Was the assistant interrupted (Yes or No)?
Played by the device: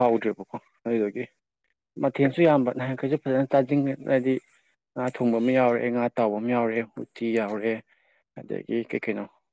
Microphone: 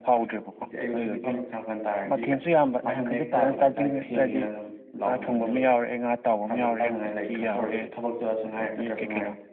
Yes